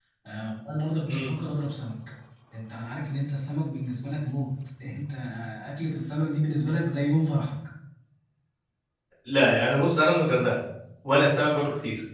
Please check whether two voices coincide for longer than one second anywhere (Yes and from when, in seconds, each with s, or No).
No